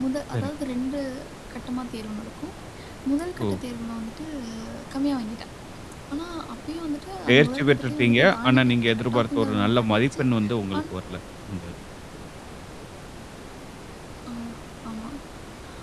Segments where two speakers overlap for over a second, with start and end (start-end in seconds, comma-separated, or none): 7.3-10.2